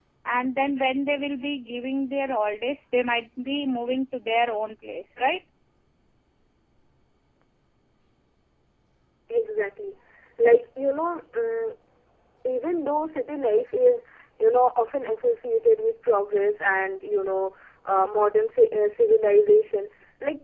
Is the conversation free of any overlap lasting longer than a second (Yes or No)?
Yes